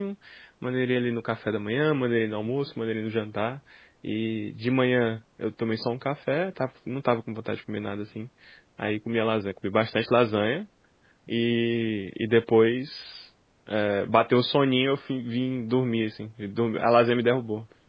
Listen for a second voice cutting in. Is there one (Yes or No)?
No